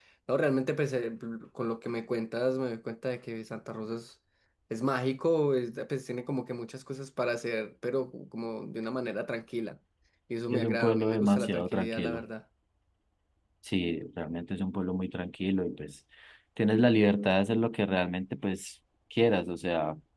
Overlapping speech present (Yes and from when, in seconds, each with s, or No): Yes, from 10.5 s